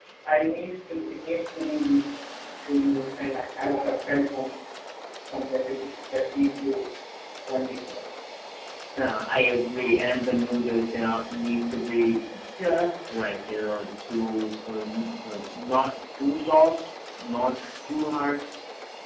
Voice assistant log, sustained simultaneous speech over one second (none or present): none